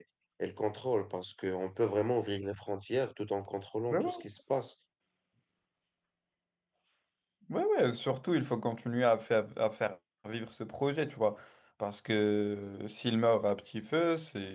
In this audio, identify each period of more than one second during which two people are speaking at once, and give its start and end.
none

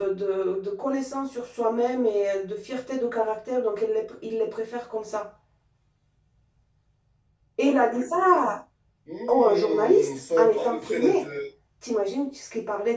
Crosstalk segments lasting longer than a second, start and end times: 9.3-11.2

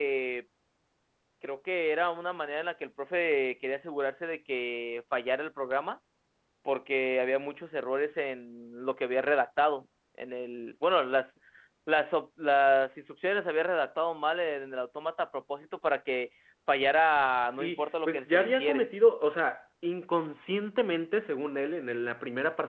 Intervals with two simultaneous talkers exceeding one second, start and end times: 17.6-18.9

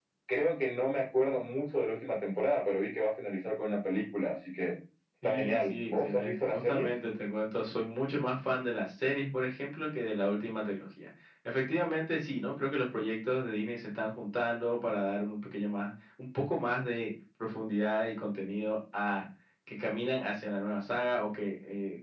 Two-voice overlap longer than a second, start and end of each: 5.2-6.9

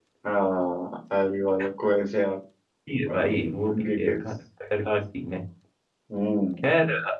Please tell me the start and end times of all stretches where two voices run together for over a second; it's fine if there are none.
none

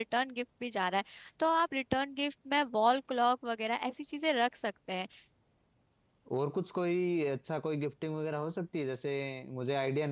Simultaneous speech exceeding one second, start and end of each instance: none

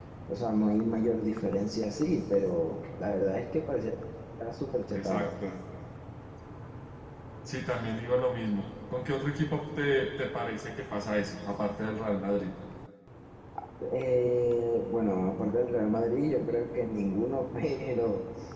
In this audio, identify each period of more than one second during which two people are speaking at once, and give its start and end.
none

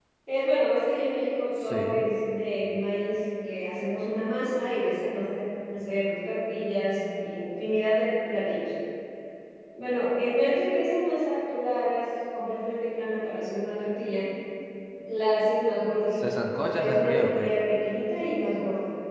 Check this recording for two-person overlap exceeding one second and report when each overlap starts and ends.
16.2-17.5

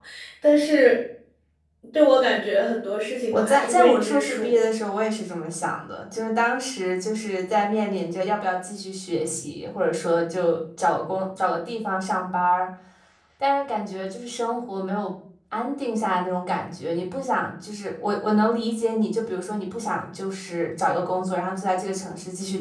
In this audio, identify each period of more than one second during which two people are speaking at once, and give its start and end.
3.3-4.6

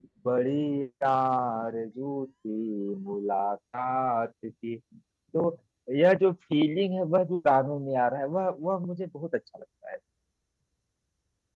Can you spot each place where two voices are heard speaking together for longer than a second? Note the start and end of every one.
none

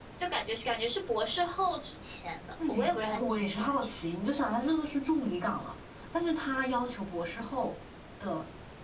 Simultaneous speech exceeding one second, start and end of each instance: 2.7-4.0

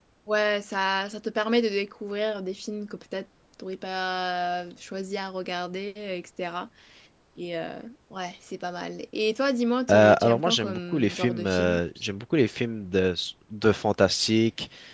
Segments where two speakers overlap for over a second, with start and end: 9.9-11.8

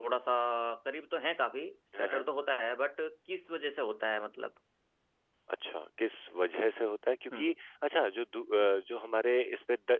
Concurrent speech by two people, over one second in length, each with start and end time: none

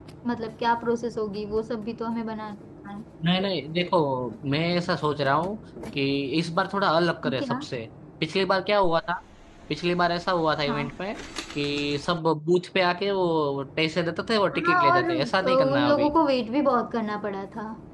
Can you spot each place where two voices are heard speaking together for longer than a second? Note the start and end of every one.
14.5-16.1

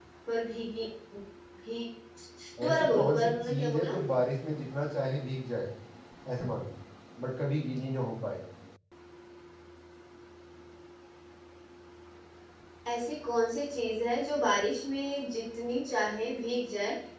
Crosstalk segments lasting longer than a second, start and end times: 2.7-3.9

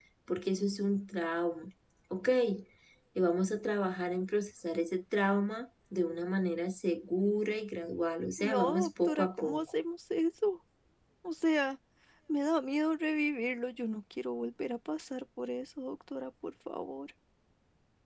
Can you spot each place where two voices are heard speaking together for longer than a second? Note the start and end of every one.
8.4-9.7

